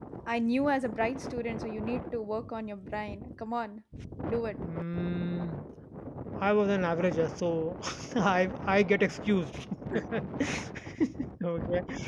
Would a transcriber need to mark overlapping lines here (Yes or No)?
No